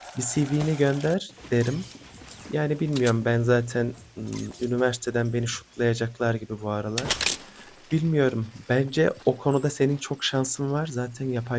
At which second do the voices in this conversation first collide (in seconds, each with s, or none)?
none